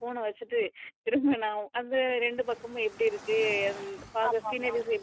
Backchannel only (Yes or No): Yes